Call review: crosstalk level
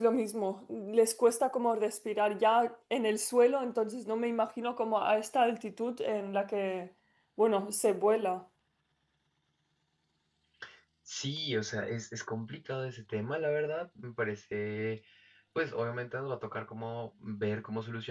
none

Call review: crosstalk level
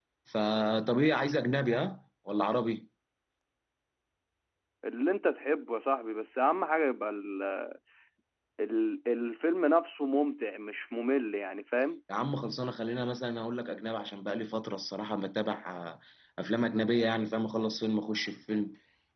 none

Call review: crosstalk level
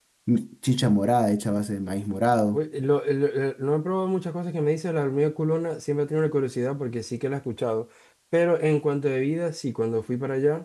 none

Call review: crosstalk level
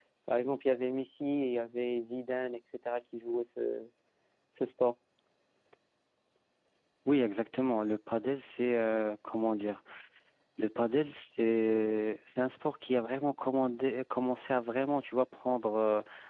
none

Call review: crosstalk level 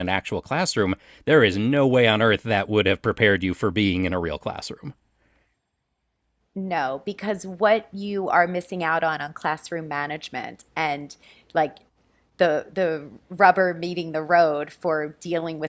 none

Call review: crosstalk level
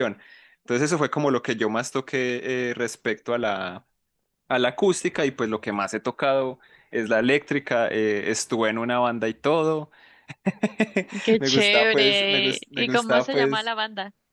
present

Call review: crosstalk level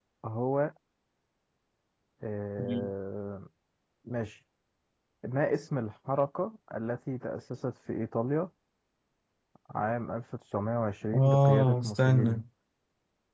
present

